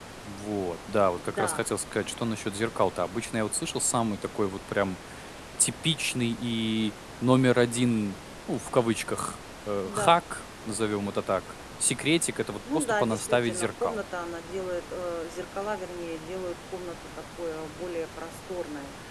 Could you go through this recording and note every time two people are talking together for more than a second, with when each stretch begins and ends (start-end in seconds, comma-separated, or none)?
12.7-14.0